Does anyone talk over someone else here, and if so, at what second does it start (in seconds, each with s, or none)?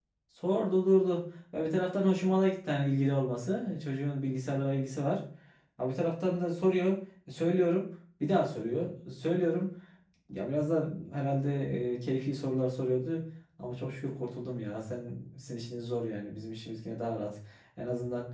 none